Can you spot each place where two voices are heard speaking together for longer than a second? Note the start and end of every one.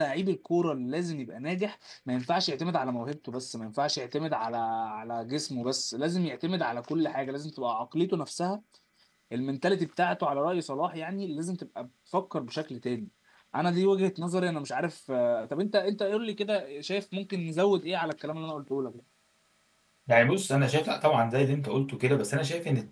none

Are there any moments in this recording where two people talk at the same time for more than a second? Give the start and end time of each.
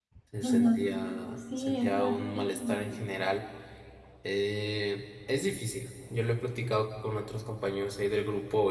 1.6-3.0

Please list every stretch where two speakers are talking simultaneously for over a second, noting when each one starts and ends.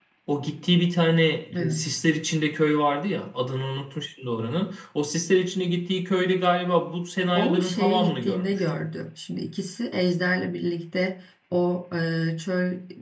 7.4-8.6

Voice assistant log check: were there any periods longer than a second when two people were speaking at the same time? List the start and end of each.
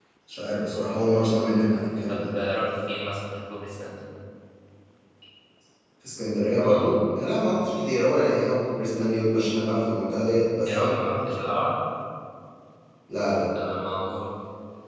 none

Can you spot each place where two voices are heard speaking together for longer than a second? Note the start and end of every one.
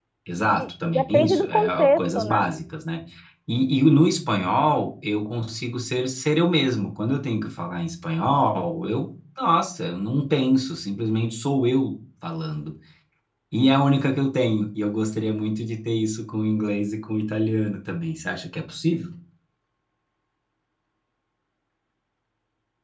0.6-2.5

